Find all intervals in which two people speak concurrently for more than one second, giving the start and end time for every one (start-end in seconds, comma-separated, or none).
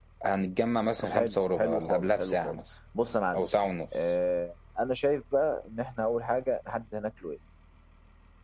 1.0-2.6